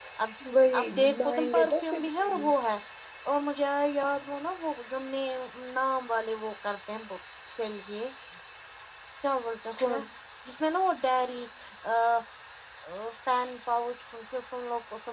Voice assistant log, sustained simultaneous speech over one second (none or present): present